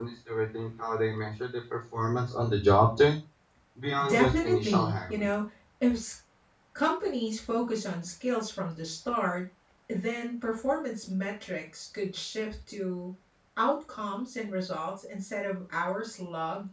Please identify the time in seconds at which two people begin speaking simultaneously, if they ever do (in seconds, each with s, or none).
4.0 s